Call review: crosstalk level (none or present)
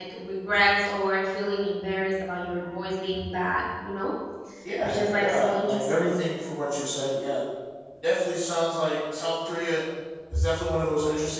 present